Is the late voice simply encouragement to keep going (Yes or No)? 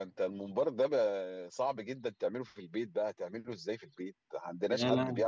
No